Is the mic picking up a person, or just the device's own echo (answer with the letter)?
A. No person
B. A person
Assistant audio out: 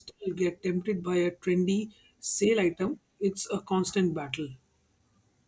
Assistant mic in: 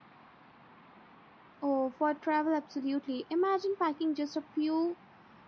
B